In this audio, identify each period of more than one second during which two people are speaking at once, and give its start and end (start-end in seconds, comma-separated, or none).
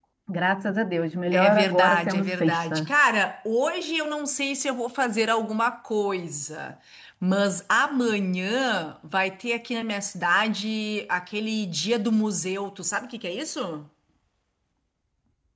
1.3-2.9